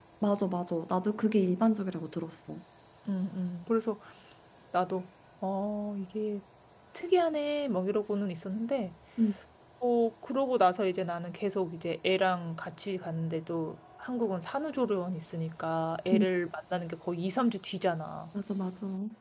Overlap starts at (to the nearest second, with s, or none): none